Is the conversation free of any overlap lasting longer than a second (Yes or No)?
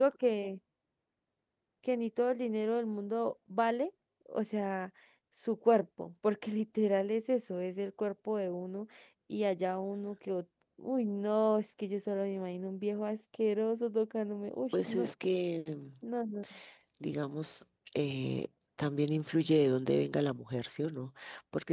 Yes